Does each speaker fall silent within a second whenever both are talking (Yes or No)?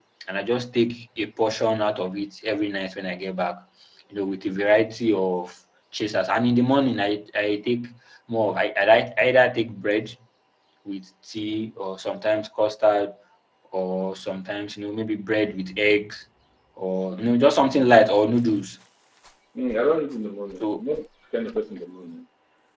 Yes